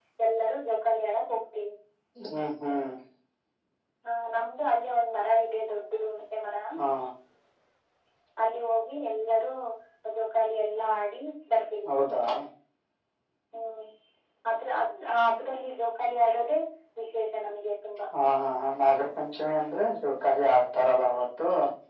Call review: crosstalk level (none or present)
none